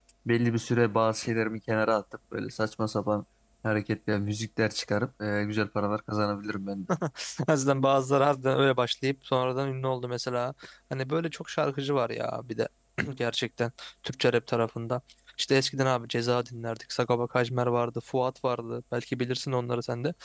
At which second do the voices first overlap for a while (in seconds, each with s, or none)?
none